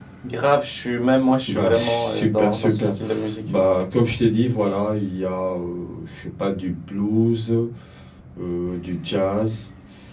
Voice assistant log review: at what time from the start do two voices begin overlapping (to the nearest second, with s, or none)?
1 s